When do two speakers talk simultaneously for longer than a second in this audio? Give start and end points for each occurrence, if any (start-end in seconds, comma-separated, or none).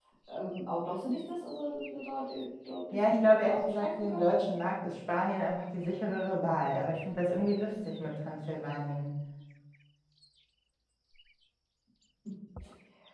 2.9-4.5